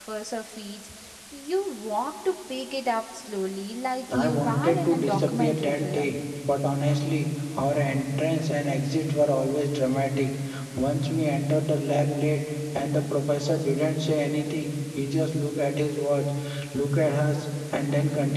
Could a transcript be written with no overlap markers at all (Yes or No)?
No